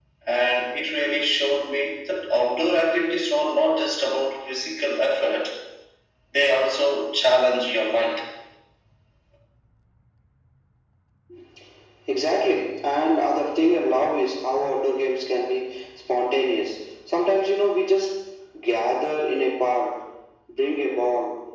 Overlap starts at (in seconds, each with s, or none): none